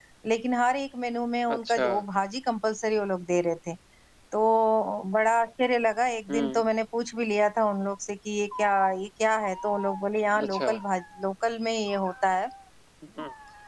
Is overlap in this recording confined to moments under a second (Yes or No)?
Yes